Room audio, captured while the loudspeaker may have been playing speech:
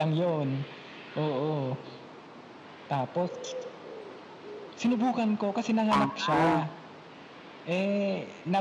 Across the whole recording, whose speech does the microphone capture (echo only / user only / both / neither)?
both